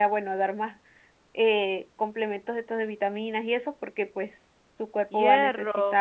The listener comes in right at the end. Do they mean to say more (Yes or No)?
Yes